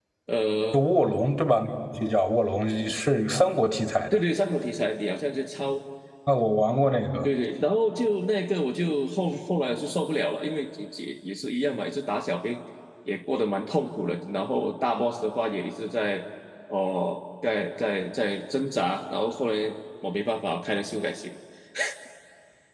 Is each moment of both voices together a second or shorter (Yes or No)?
Yes